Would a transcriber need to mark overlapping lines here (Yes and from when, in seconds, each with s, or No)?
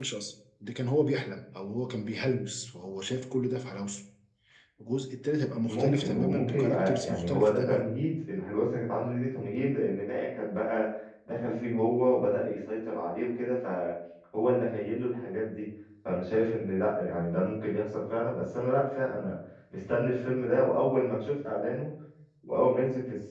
Yes, from 5.7 s